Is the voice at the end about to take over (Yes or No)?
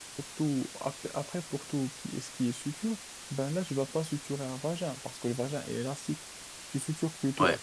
No